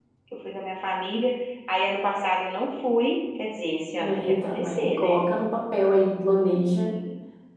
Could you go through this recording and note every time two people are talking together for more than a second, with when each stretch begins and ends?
4.0-5.3

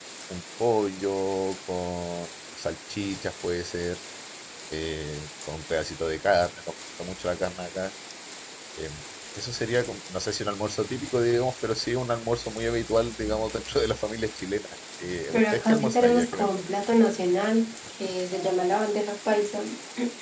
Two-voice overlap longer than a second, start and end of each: 15.3-16.6

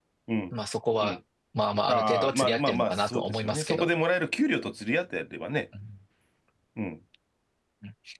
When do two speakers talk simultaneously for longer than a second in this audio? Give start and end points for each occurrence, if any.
1.9-3.9

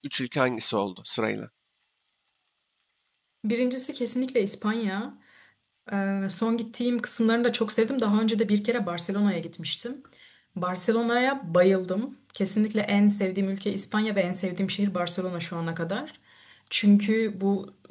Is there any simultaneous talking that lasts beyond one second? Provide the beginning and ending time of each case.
none

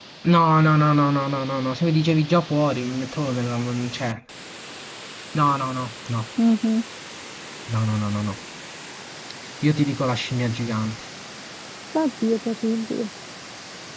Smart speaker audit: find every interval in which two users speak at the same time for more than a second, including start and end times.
none

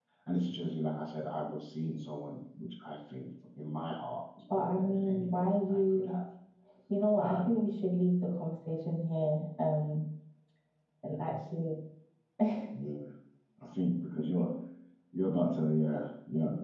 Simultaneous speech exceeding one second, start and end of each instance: 4.5-6.1

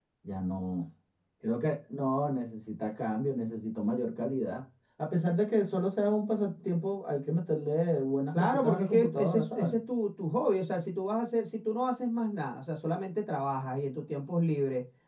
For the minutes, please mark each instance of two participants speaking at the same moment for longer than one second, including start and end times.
8.3-9.7

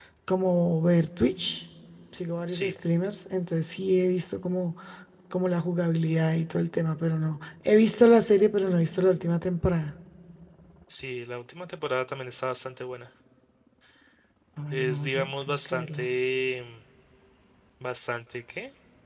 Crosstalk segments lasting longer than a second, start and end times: 14.7-16.1

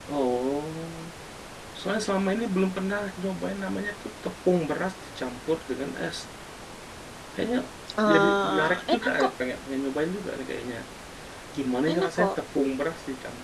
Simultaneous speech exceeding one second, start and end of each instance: 8.1-9.3

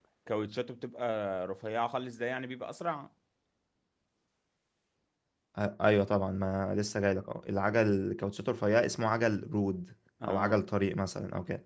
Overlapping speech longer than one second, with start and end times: none

